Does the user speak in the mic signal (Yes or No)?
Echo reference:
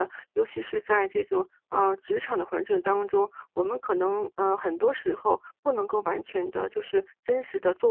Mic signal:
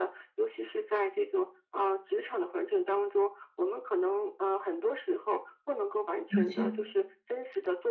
Yes